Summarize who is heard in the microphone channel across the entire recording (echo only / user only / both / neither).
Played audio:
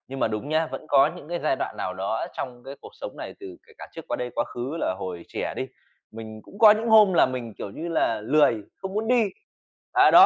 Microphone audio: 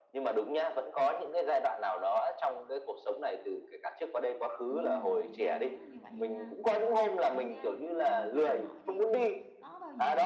both